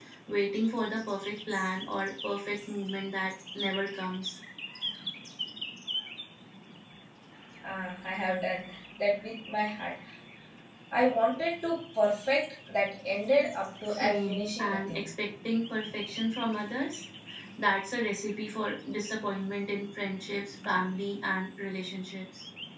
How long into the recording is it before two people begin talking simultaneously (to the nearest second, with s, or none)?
14 s